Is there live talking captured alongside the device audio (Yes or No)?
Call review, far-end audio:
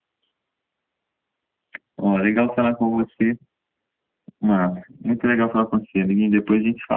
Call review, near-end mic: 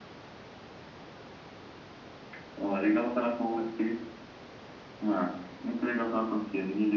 No